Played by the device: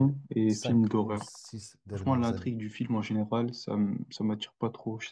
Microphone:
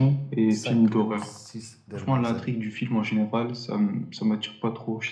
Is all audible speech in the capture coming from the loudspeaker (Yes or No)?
Yes